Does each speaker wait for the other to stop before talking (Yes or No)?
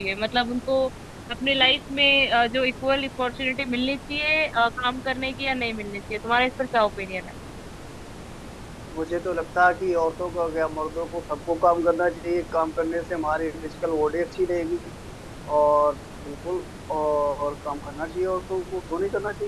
Yes